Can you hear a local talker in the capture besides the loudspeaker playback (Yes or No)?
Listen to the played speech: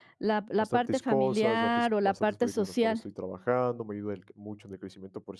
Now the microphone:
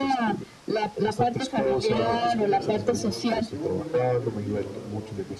Yes